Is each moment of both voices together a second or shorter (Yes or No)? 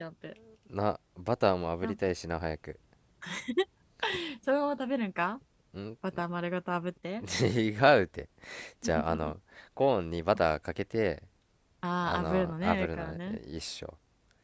No